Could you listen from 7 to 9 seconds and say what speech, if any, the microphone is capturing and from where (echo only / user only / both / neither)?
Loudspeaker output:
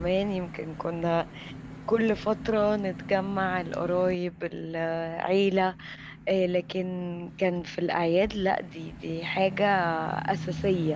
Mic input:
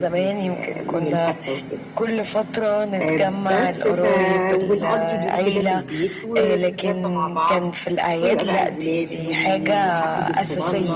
both